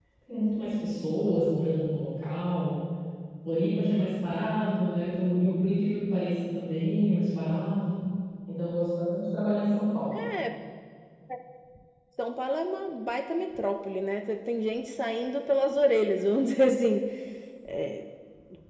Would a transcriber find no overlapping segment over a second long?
Yes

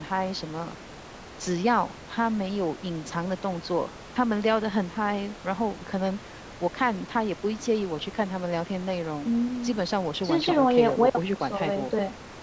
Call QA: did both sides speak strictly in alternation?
No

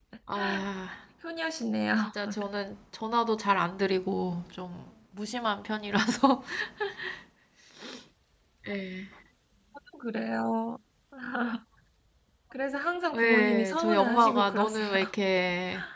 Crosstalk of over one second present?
Yes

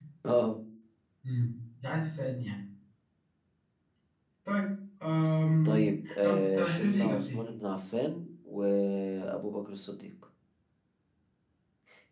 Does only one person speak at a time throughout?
No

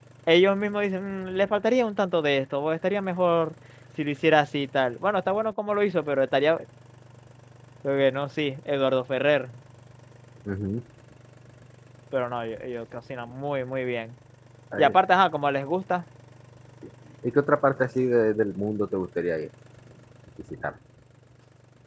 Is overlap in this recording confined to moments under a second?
Yes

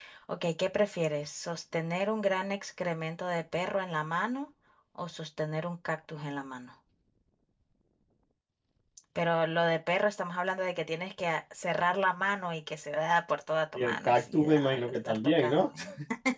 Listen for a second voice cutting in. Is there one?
Yes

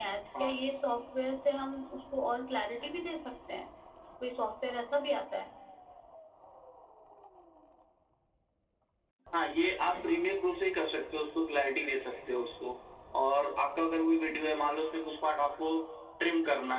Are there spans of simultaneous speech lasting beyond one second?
No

